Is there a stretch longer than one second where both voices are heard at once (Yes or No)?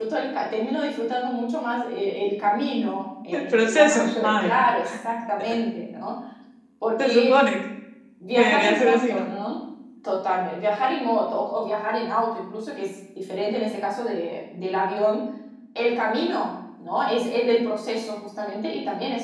Yes